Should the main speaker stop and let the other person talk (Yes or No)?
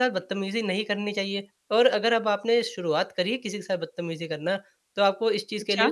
No